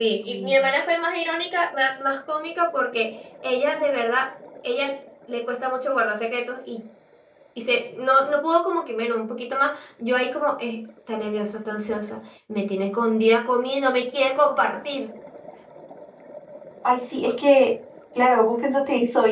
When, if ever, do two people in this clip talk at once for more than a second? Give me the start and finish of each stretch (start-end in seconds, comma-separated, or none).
none